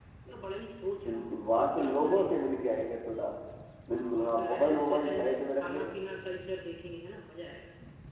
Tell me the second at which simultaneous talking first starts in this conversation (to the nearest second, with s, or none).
1 s